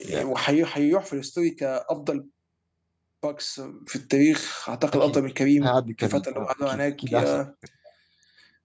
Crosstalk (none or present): present